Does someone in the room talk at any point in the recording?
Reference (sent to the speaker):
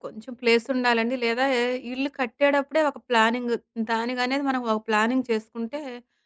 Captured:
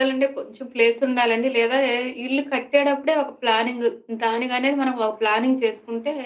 No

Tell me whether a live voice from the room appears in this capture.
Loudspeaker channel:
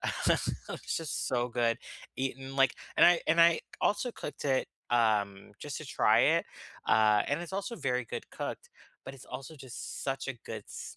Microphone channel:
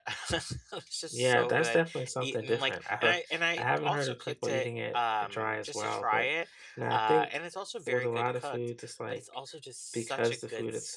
Yes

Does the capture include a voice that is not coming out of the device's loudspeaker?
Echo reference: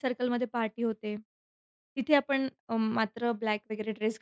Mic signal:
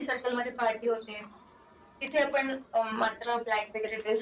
No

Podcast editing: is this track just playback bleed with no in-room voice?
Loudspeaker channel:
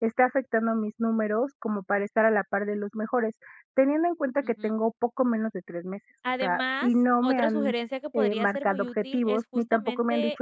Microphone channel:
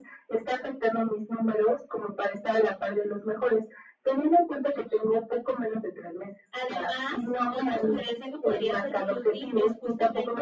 Yes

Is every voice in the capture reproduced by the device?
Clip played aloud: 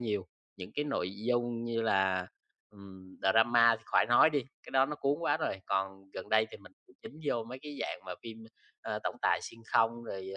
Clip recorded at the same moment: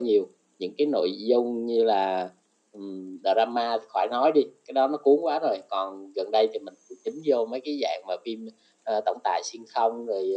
Yes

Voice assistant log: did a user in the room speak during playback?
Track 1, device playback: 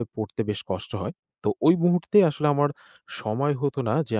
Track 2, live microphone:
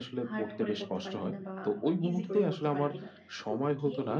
Yes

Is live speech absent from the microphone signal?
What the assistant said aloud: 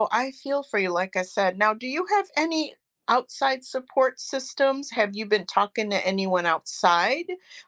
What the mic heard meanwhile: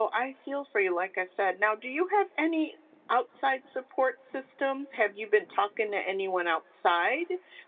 Yes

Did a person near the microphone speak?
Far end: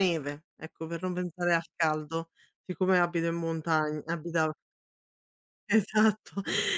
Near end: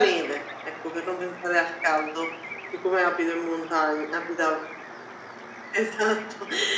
No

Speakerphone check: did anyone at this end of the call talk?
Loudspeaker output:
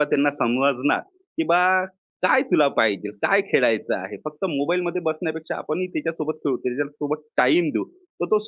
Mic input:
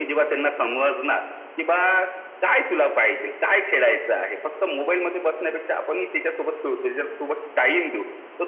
No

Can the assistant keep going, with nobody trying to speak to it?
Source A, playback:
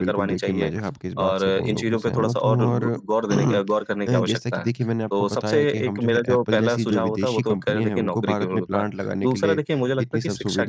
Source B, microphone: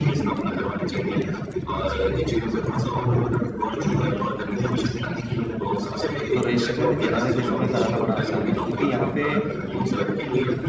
No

